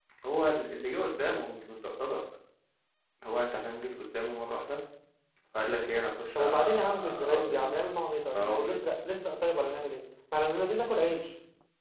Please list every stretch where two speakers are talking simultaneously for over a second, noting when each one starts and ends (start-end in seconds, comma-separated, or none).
6.4-7.7